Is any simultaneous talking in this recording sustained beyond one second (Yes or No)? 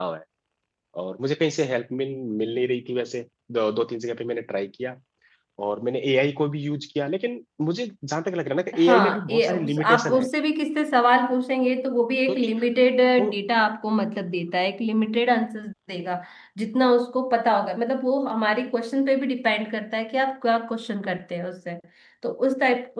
Yes